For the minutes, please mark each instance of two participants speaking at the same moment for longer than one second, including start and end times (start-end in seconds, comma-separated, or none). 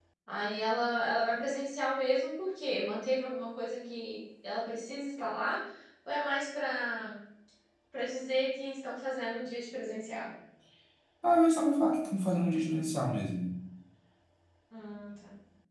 none